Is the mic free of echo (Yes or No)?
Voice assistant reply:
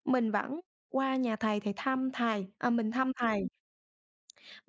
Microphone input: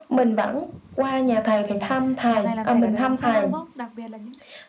No